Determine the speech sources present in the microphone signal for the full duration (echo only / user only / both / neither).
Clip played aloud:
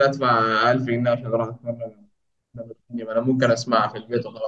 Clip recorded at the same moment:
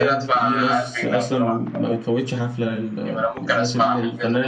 both